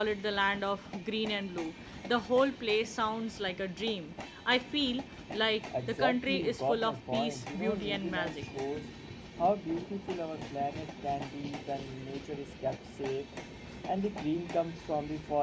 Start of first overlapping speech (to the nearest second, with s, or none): 6 s